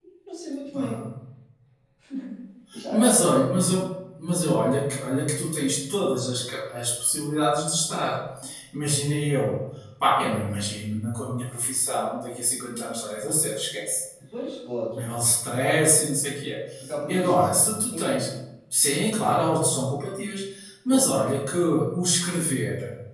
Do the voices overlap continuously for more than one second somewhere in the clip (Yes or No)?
Yes